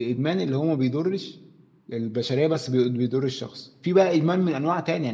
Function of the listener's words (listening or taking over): listening